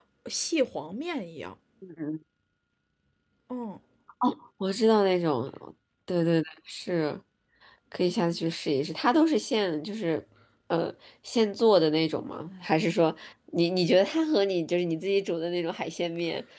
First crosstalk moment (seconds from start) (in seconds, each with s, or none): none